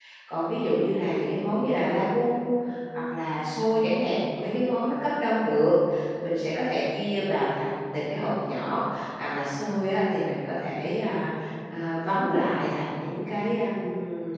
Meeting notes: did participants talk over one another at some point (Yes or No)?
No